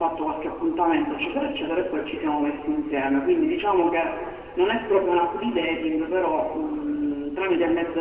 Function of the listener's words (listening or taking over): taking over